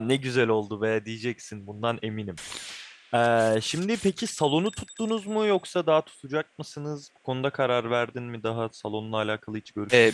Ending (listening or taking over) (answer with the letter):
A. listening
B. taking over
B